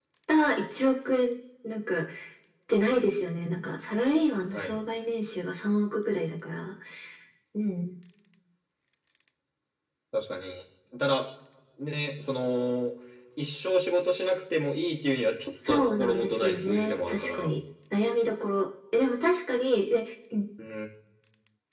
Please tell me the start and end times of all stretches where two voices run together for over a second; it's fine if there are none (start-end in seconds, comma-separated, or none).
15.7-17.6